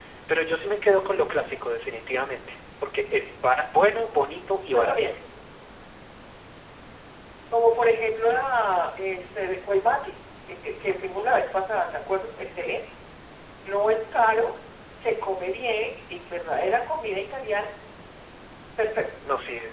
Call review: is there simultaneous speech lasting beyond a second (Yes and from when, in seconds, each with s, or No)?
No